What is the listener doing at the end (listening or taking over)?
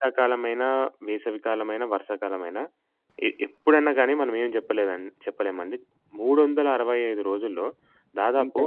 listening